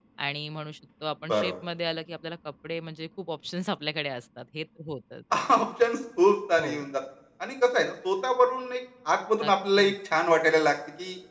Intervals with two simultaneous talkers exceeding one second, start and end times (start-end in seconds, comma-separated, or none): none